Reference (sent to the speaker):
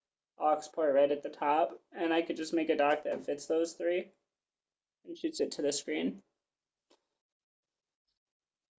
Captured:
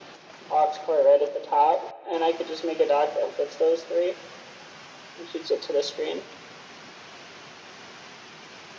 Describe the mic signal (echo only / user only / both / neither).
echo only